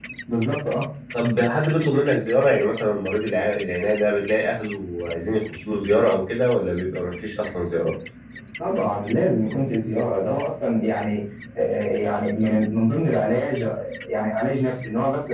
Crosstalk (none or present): none